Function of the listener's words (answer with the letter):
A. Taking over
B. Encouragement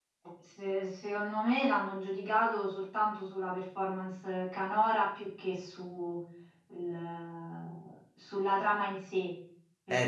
A